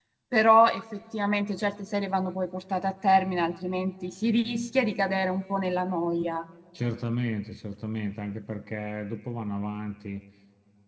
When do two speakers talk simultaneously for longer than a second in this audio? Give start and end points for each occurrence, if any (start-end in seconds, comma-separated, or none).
none